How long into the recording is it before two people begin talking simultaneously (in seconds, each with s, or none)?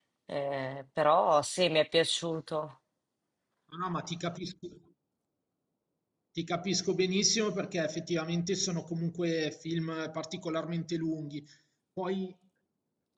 none